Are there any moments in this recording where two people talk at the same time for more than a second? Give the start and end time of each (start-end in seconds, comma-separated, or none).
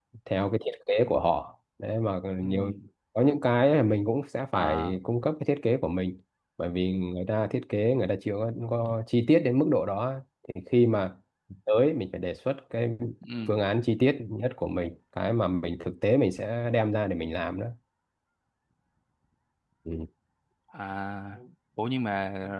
none